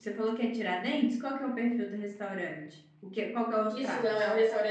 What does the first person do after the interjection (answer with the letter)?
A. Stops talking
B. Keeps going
A